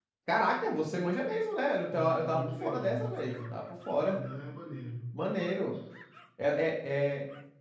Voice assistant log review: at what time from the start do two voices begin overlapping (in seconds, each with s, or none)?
1.9 s